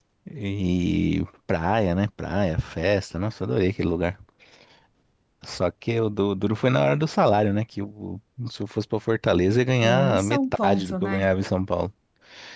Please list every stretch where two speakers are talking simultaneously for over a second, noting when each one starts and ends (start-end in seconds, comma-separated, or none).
9.8-11.3